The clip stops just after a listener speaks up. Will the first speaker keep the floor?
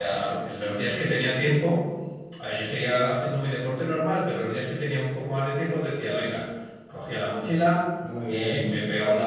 Yes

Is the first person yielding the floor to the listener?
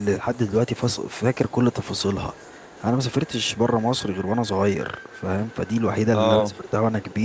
No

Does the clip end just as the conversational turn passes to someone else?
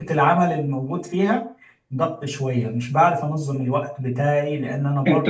Yes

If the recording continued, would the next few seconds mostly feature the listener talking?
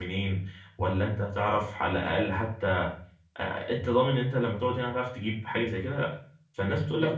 No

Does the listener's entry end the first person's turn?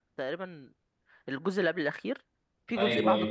Yes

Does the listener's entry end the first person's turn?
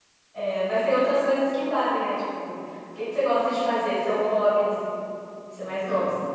Yes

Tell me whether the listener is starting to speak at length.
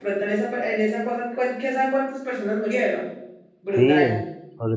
Yes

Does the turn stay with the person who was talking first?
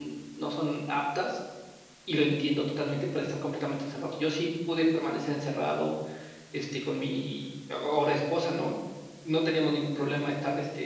Yes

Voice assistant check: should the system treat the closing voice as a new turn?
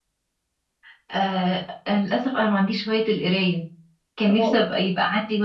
No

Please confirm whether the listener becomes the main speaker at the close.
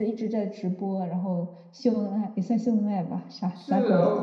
Yes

